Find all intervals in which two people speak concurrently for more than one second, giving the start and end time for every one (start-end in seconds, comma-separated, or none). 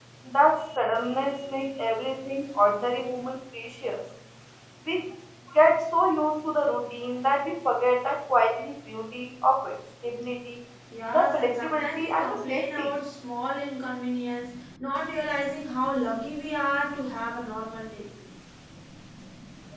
11.1-12.9